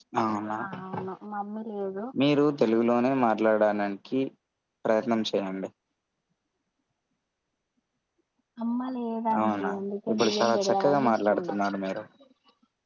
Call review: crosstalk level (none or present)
present